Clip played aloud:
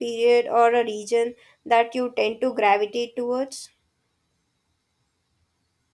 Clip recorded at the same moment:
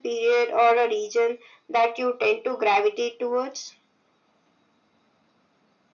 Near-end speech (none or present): none